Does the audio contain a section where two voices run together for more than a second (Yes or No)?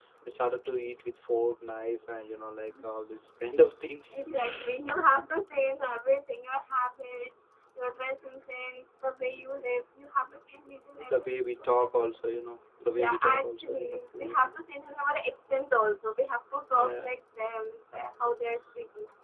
Yes